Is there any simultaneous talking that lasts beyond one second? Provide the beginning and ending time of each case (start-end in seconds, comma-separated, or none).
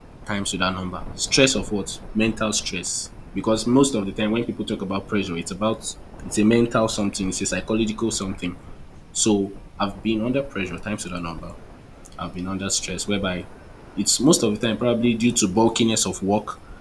none